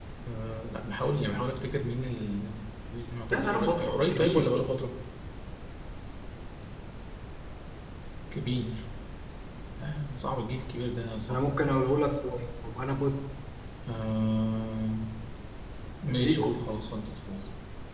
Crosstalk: present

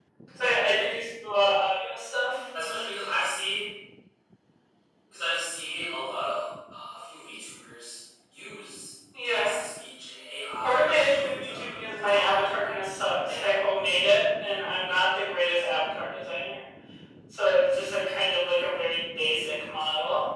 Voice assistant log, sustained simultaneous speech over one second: present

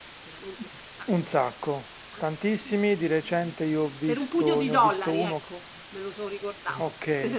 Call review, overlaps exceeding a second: present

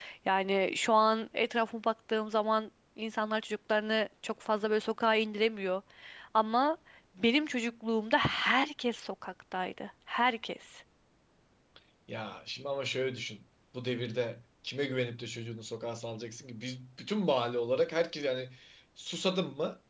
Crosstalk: none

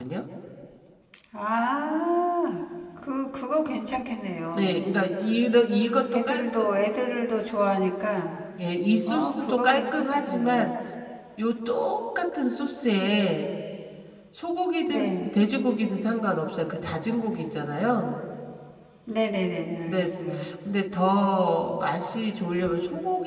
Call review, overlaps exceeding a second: present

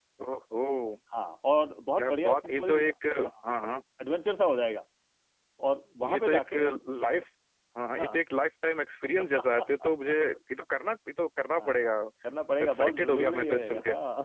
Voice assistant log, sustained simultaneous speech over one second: present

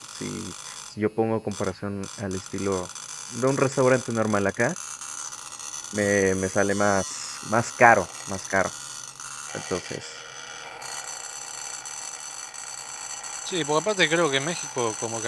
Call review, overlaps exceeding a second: none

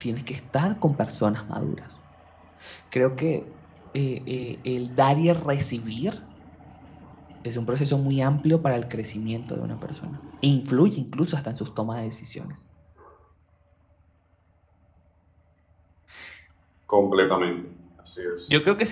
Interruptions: none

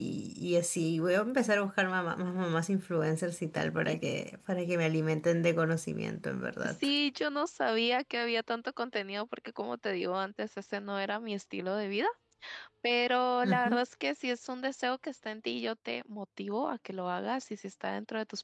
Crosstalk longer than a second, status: none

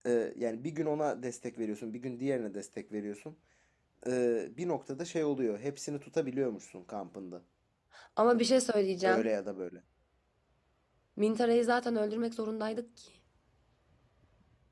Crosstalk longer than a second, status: none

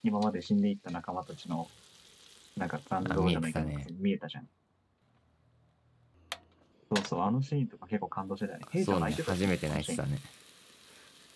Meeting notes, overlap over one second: present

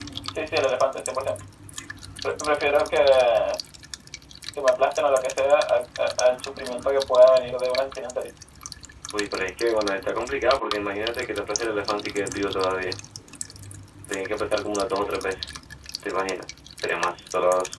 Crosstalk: none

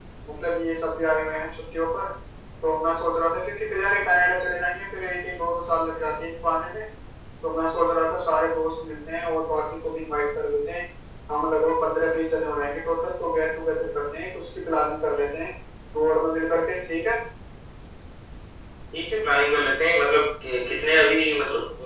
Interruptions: none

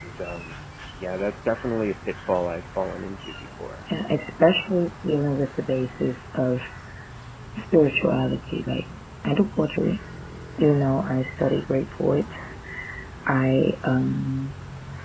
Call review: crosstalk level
none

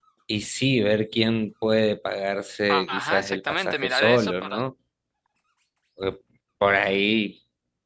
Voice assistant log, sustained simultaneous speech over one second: present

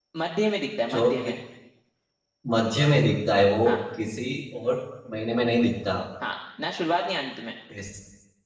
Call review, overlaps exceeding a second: none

